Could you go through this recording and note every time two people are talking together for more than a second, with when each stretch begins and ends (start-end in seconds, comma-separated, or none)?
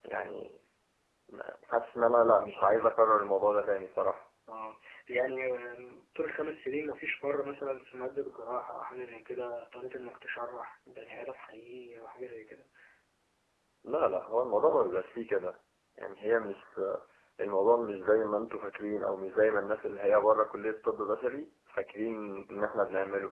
none